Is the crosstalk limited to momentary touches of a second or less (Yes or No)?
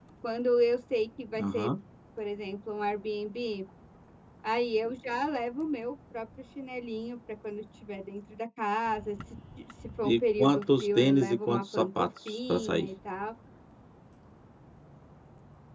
No